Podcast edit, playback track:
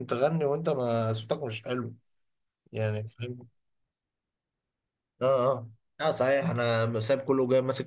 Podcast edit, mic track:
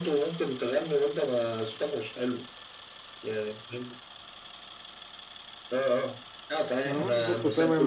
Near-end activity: present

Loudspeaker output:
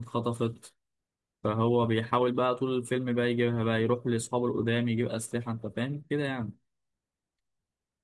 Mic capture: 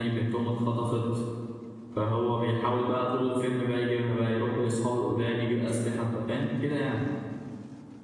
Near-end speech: none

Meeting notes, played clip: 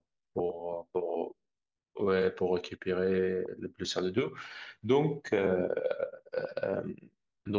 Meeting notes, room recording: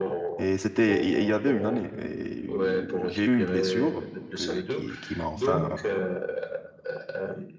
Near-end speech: present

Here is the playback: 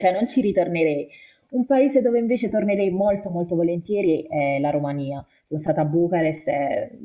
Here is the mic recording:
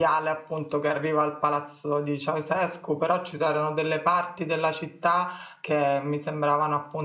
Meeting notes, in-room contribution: present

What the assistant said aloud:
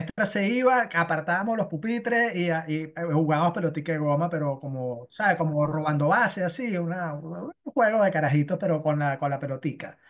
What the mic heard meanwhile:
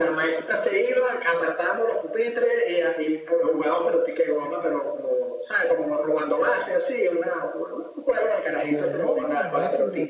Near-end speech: present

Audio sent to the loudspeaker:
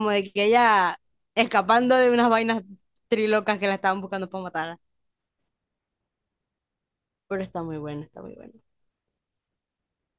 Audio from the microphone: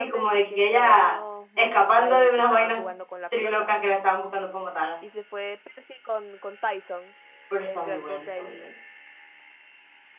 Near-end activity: present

